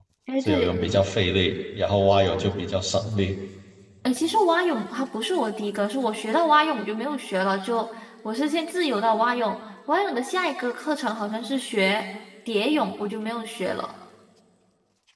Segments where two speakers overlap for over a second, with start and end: none

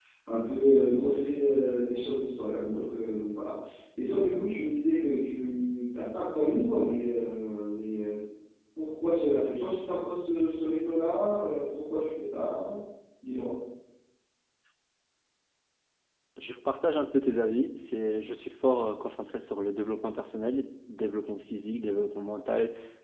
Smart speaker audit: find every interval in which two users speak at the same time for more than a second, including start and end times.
none

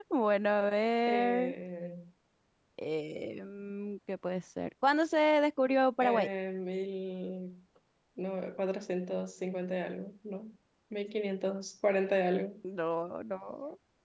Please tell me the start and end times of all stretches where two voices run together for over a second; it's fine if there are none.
none

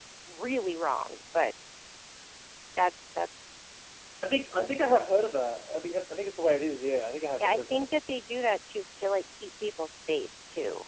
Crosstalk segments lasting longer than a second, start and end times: none

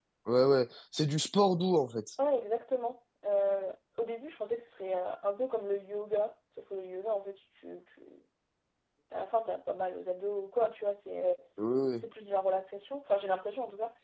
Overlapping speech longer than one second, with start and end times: none

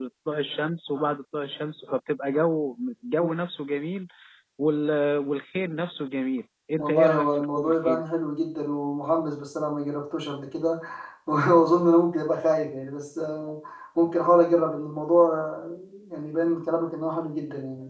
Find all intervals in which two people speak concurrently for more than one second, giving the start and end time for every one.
6.8-8.0

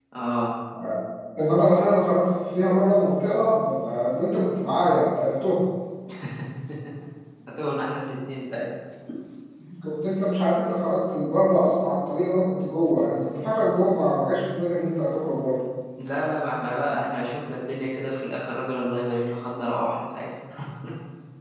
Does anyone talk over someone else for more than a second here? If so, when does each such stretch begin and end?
none

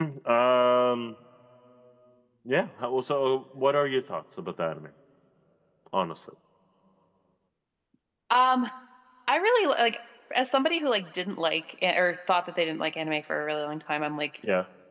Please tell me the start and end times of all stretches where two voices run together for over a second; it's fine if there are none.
none

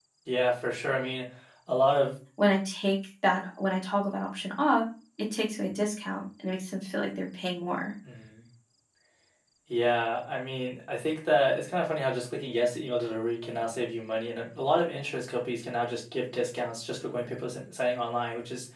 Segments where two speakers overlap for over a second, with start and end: none

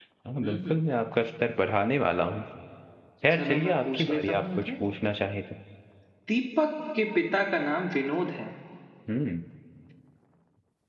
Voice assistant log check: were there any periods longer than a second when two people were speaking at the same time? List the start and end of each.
3.3-4.7

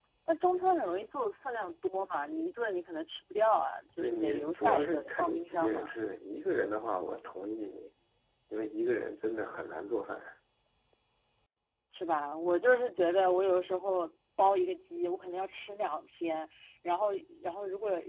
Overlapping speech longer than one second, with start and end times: 4.0-5.8

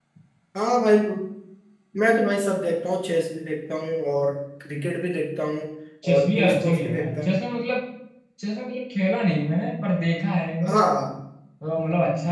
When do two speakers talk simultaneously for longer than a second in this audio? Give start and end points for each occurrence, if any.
6.1-7.4

